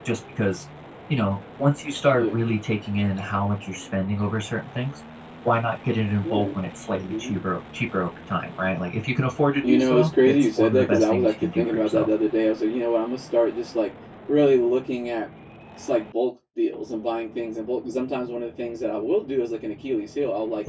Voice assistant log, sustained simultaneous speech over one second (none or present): present